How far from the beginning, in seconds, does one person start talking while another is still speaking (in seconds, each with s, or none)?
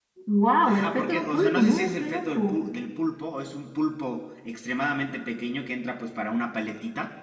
0.6 s